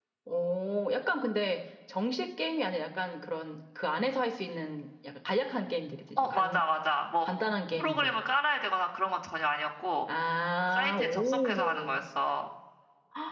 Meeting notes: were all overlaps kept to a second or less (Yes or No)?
No